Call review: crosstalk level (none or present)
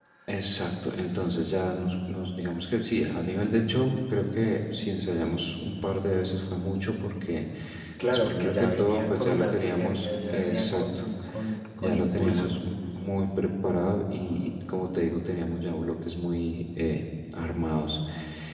present